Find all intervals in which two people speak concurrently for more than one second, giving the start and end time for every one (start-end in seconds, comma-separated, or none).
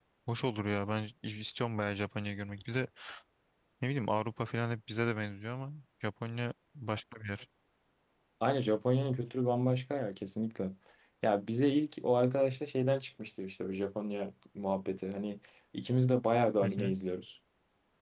none